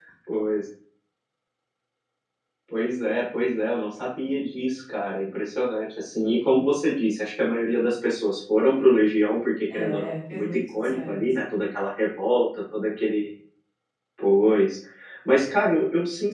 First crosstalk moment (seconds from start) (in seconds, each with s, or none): 9.7 s